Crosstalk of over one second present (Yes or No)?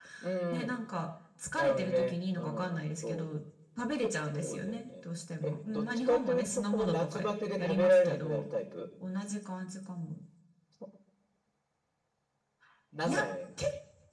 Yes